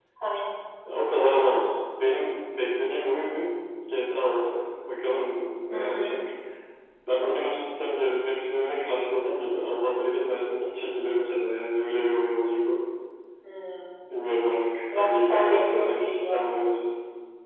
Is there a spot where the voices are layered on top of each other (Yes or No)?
Yes